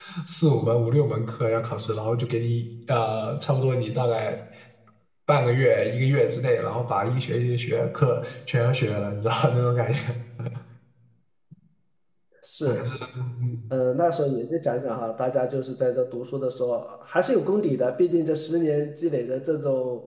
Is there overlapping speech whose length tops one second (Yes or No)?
No